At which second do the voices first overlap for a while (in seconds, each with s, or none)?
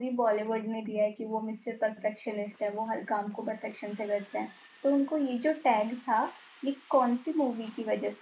none